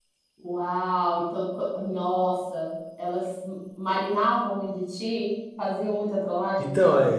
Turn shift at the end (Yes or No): Yes